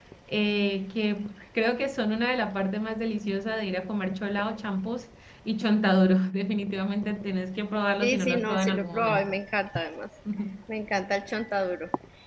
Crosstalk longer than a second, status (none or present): present